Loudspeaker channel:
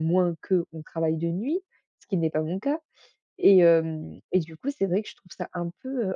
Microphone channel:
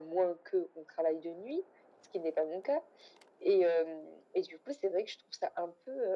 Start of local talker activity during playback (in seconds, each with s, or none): none